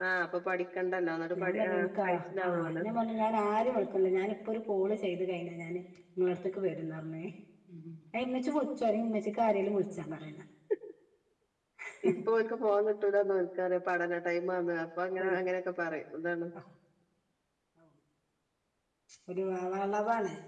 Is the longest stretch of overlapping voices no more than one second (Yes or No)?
No